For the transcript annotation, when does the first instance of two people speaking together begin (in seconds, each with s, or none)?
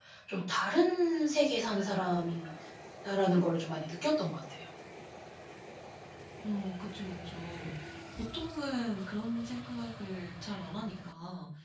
none